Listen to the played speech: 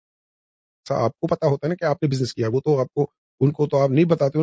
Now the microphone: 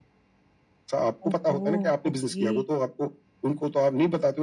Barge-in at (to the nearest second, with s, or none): 1 s